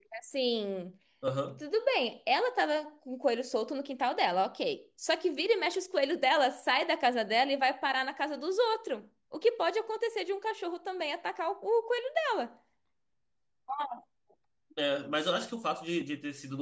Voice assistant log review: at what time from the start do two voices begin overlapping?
none

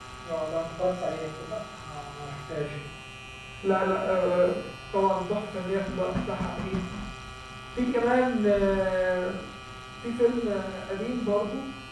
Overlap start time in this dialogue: none

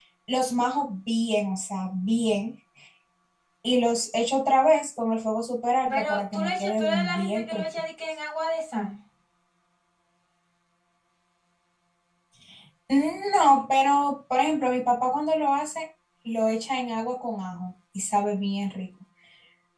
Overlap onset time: 5.9 s

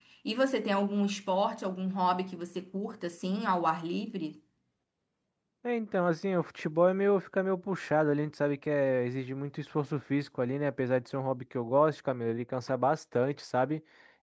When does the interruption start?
none

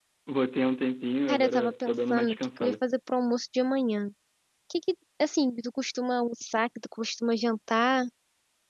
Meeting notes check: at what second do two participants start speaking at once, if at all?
1.3 s

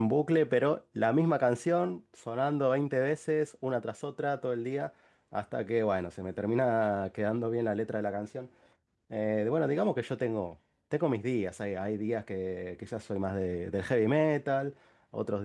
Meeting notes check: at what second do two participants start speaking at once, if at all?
none

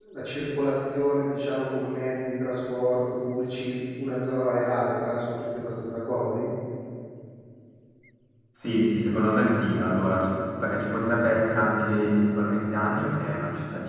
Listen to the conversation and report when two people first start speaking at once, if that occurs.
none

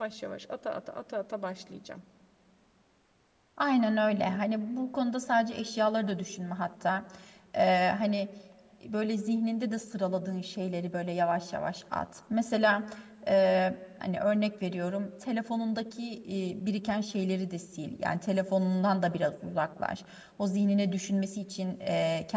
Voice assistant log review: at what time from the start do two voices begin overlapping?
none

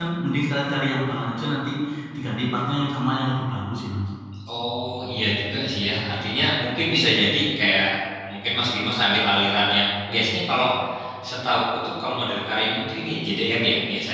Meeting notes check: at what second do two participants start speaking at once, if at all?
none

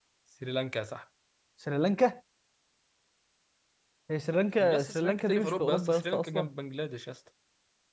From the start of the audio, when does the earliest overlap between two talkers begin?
4.6 s

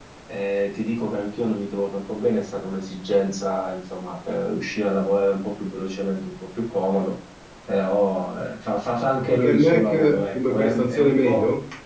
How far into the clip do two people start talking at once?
9.2 s

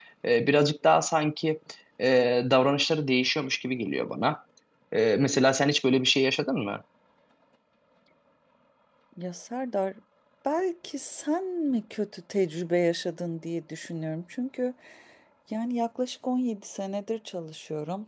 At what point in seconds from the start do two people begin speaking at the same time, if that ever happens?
none

